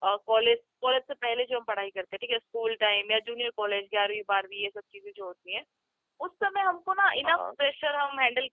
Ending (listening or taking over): listening